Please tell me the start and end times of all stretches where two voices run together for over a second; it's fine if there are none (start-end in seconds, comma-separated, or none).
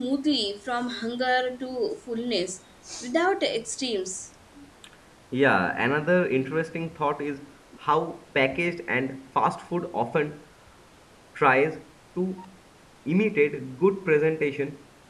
none